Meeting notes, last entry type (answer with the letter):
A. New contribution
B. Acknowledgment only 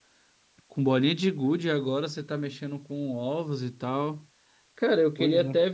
B